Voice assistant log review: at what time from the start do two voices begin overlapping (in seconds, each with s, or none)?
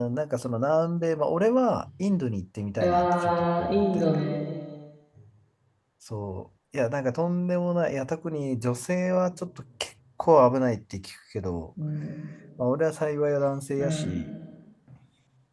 2.8 s